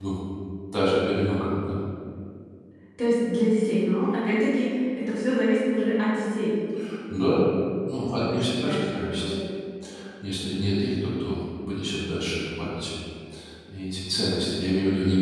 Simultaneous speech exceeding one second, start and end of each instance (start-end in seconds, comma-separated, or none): 8.0-9.3